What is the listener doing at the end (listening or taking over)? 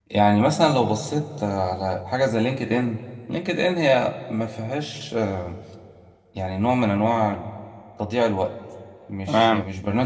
listening